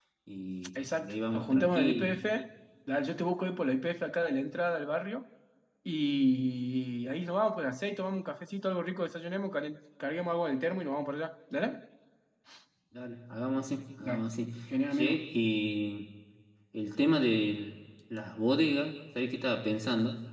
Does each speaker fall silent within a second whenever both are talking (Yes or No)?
No